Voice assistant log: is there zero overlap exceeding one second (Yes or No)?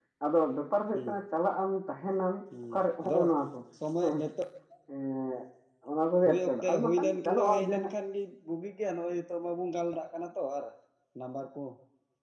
No